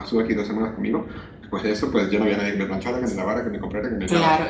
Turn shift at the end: Yes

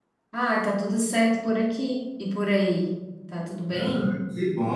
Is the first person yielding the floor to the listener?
Yes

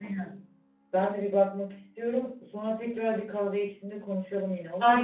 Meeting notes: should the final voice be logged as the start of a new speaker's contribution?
Yes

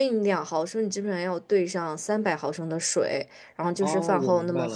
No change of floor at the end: No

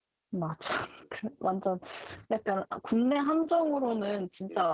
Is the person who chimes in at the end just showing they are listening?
Yes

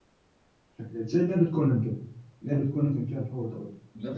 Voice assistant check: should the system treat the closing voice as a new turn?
Yes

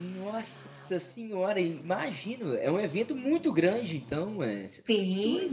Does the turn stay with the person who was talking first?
No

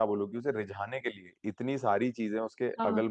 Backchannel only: Yes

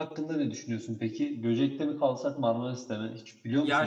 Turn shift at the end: Yes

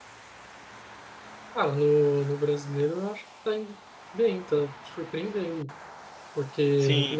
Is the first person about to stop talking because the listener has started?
No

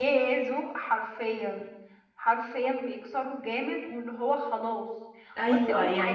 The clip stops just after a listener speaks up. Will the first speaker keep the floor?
No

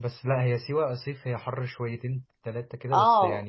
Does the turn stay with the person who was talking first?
No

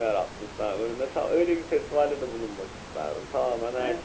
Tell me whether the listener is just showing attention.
No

